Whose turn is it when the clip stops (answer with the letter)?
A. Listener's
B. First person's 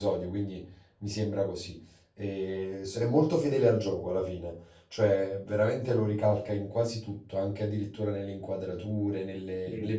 B